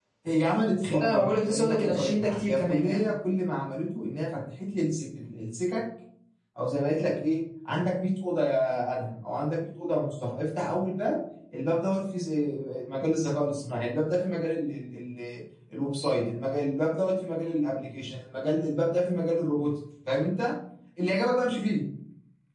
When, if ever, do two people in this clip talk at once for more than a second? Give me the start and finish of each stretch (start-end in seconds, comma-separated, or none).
0.9-3.0